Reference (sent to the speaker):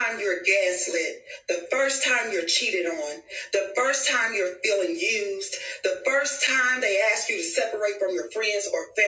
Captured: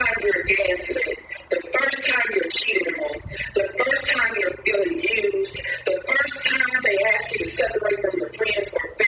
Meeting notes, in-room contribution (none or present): none